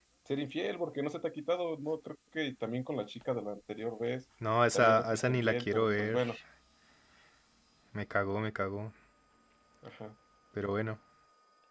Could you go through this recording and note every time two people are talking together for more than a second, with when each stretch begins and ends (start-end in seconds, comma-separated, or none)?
4.7-6.2